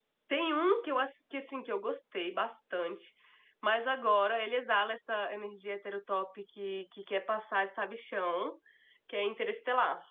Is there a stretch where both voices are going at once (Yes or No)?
No